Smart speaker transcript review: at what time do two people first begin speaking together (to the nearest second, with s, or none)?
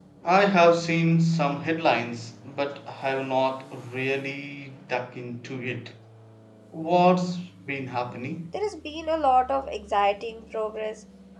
none